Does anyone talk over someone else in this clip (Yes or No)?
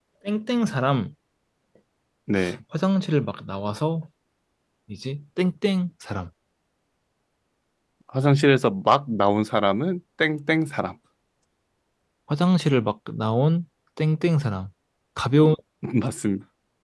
No